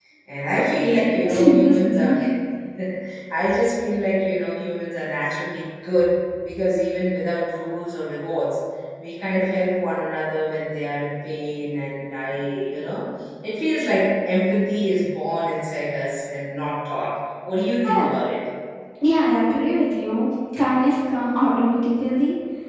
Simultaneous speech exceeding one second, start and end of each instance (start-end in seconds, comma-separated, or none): 0.6-2.1